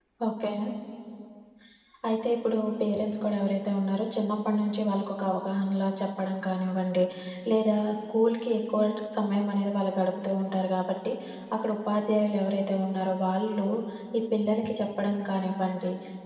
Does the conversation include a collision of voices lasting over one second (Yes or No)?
No